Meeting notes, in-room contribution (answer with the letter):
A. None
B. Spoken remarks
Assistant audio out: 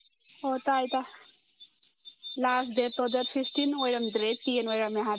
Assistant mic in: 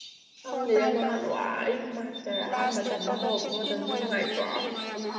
B